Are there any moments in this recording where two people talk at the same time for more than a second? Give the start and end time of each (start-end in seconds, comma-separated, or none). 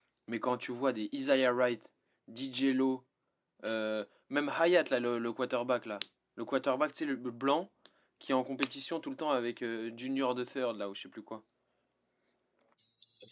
none